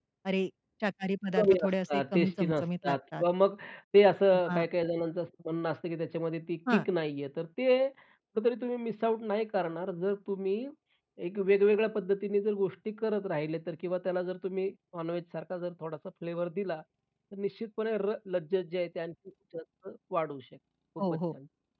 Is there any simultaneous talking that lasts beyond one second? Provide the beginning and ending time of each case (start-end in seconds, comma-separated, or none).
1.4-3.2